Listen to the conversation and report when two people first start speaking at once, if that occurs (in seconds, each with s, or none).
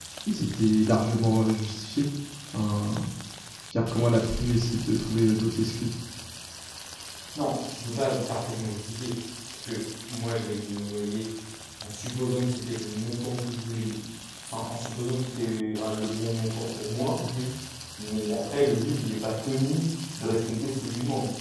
none